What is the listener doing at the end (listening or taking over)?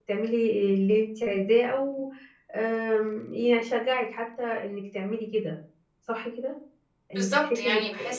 taking over